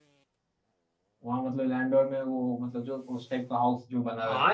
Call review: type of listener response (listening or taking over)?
taking over